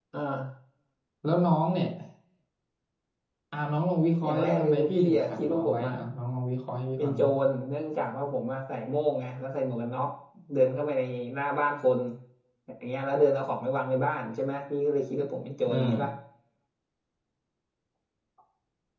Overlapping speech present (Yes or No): Yes